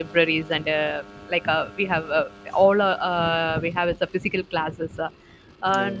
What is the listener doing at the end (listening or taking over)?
listening